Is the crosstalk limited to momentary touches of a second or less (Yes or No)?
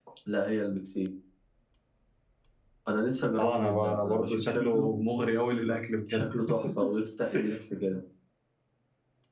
No